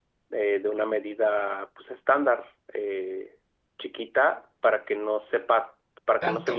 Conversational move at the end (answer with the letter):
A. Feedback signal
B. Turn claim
A